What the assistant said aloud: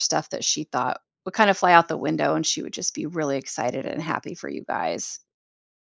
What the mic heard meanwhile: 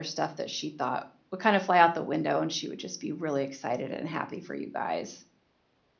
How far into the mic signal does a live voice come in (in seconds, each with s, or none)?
none